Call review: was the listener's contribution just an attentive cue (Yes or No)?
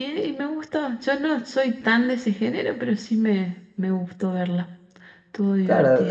No